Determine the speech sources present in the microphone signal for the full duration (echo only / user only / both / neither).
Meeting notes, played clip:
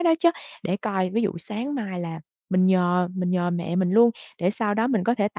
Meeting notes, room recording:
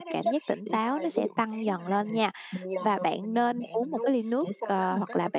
both